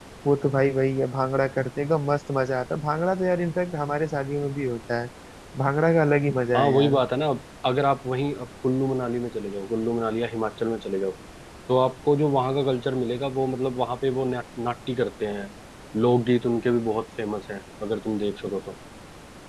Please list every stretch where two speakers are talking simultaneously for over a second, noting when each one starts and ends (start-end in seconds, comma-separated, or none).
none